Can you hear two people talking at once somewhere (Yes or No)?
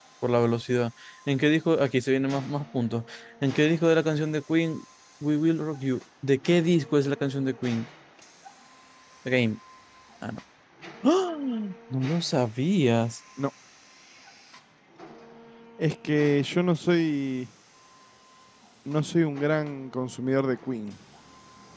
No